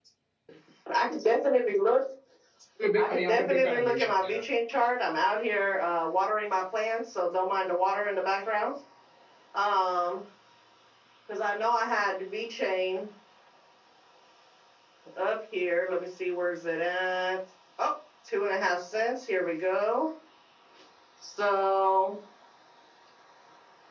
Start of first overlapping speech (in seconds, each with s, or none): 3.0 s